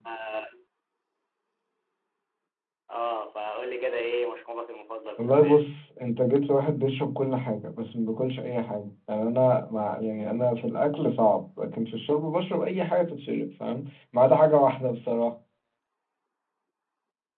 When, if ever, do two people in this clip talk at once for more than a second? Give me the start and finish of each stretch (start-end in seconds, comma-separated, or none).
none